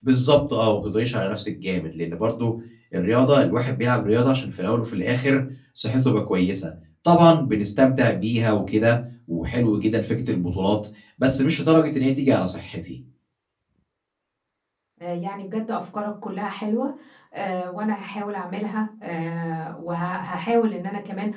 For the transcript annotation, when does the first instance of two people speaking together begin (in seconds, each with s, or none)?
none